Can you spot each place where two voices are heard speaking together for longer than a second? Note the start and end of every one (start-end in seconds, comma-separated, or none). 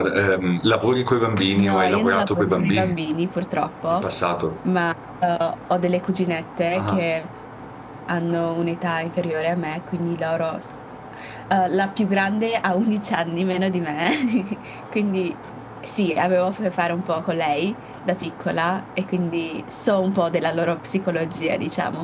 1.5-2.9